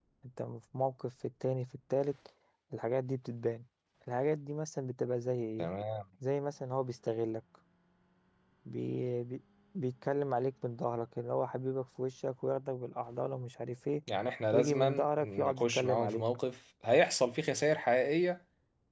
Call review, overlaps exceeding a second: present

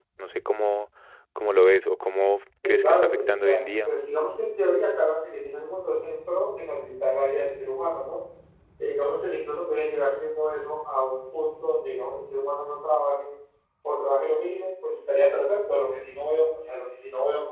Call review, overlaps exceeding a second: present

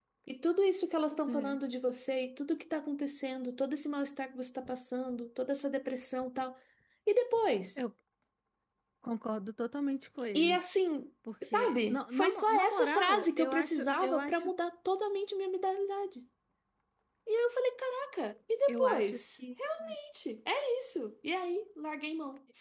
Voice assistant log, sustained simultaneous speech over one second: present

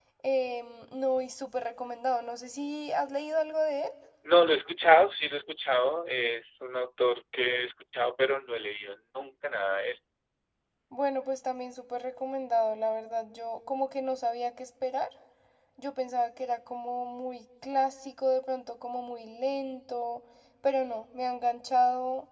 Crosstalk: none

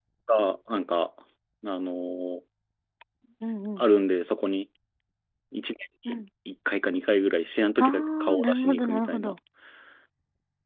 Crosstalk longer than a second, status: present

